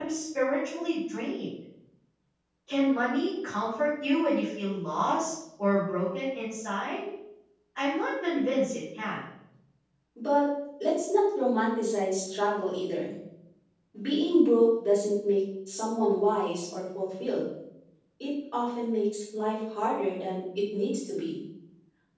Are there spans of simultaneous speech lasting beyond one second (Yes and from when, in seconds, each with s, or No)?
No